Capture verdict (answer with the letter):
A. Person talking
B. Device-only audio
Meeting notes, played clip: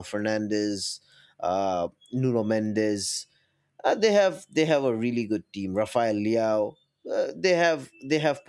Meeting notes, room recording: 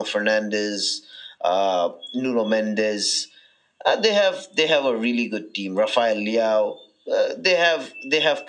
B